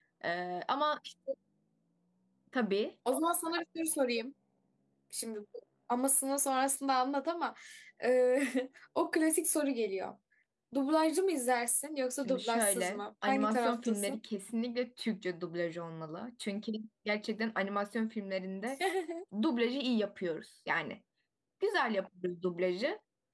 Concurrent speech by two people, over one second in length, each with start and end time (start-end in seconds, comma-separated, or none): 12.2-14.2